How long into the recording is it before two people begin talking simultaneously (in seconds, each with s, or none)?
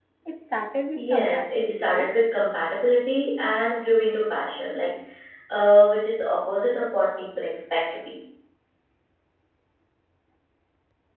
0.9 s